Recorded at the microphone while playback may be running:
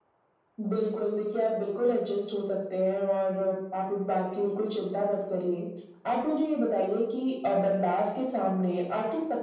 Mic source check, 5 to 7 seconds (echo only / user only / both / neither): echo only